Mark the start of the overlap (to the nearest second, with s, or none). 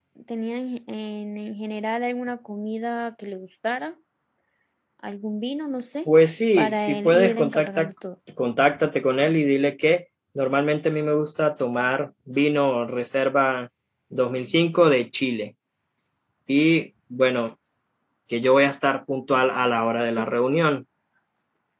7 s